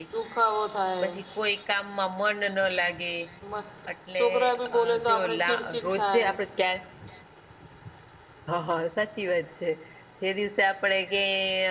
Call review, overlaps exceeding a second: present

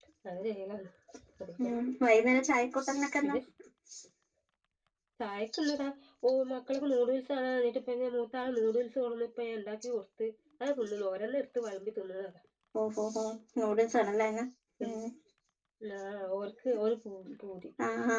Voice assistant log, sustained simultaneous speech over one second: none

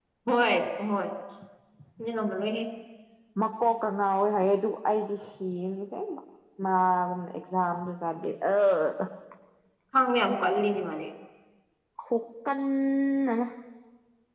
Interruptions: none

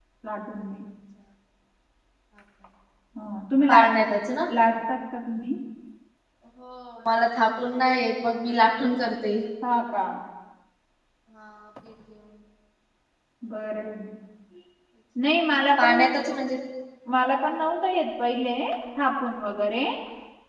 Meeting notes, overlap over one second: none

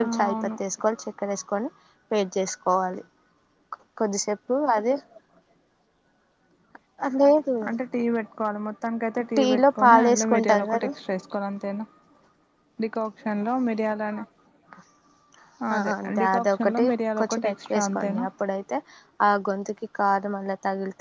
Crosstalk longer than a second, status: present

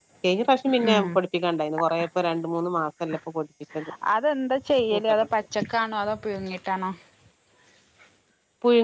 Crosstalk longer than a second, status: none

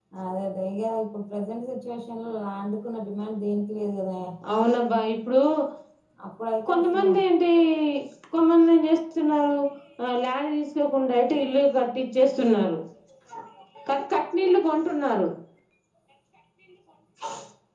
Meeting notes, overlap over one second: none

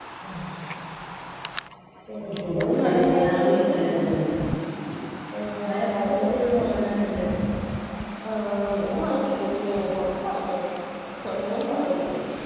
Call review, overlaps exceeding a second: present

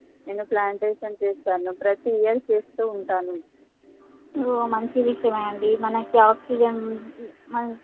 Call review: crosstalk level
none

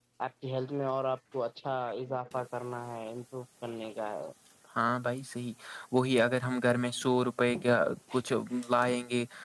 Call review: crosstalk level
none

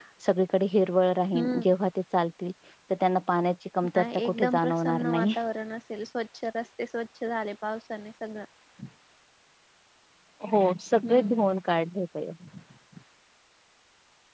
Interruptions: present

